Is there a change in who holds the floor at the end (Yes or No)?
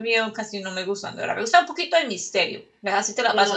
Yes